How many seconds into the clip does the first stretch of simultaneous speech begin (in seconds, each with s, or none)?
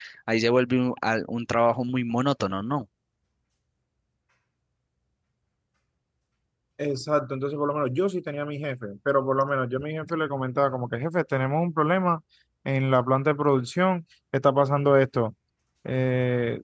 none